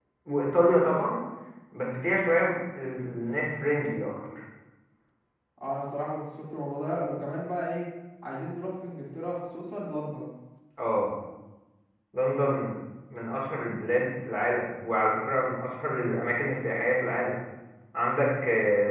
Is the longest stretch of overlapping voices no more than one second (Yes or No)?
Yes